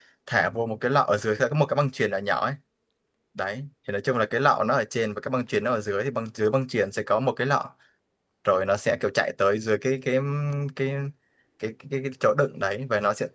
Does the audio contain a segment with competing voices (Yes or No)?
No